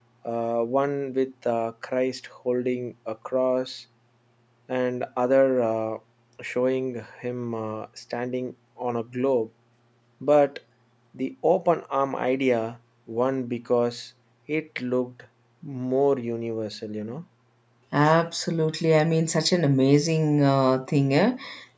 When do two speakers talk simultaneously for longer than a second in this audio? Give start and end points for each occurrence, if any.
none

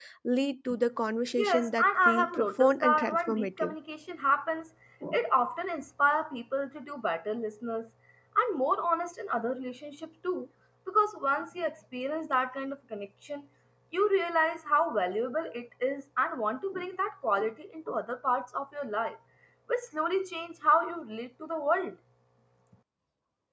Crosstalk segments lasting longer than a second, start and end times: 1.4-3.7

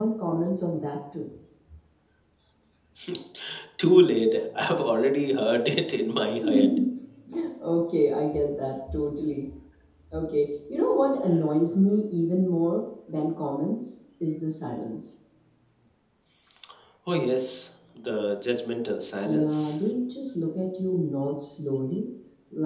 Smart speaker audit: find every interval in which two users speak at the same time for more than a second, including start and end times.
none

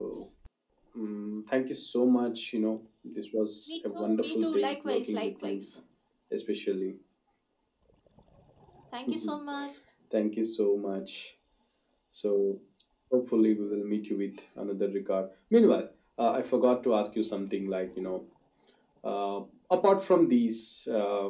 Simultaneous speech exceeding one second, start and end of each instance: 3.7-5.7

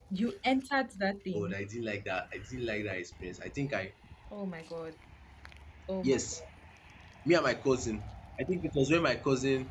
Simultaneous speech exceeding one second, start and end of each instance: none

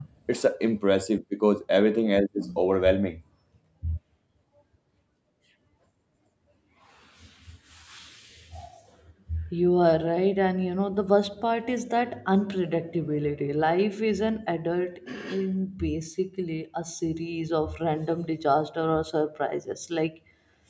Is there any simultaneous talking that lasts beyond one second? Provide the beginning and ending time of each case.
none

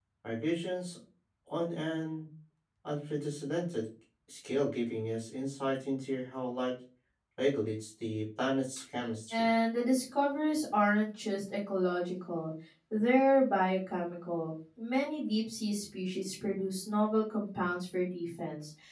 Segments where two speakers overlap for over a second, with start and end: none

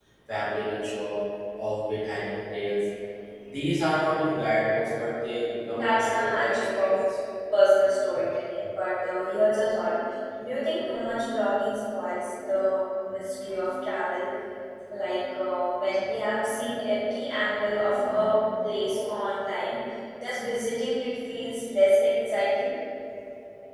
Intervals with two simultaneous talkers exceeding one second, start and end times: 5.7-7.0

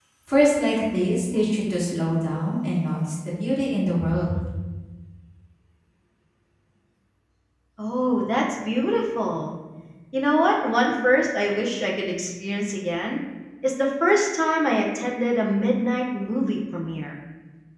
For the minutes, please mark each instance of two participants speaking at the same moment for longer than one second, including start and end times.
none

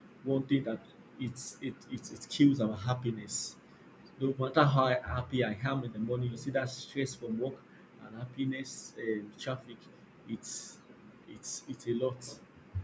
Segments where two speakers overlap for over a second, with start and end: none

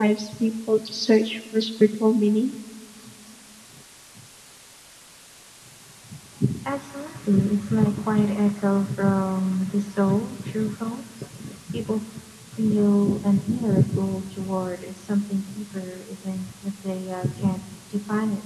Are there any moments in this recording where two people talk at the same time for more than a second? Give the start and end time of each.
none

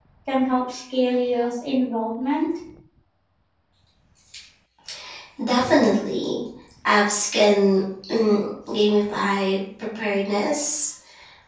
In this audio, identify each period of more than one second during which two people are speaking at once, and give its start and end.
none

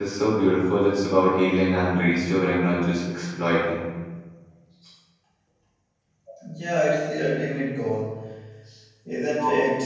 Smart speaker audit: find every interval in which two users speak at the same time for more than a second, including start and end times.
none

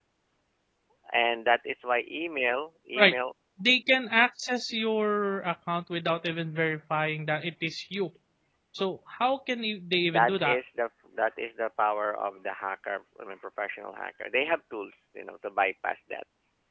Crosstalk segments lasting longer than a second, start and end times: none

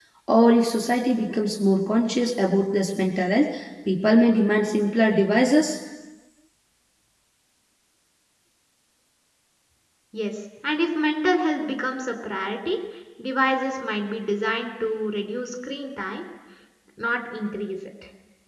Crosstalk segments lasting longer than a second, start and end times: none

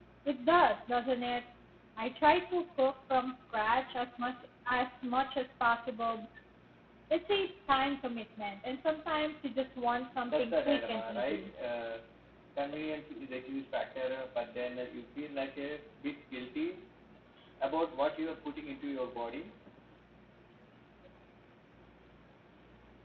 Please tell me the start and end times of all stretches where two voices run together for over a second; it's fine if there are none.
10.3-11.5

